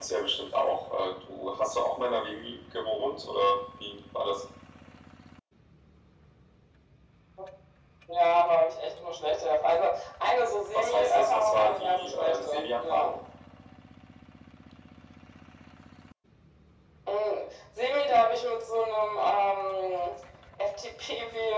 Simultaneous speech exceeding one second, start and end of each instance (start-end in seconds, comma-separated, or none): 10.8-13.2